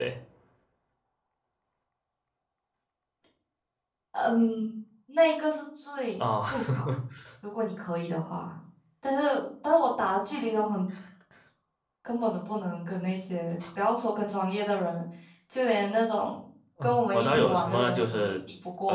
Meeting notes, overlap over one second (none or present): present